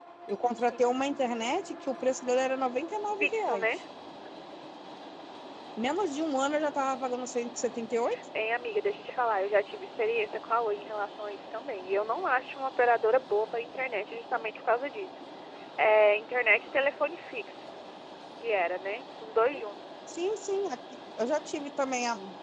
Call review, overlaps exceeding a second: none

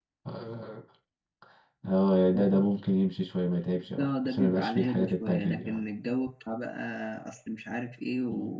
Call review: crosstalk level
present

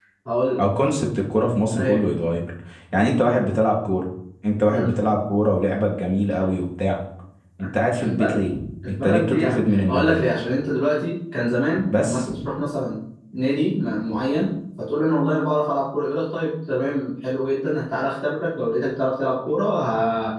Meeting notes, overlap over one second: present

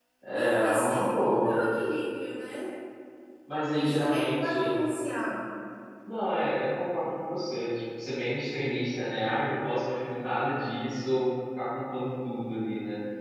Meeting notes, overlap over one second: present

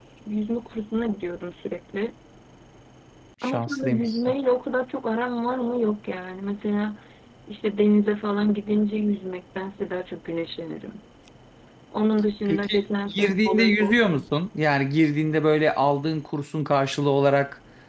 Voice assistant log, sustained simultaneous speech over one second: present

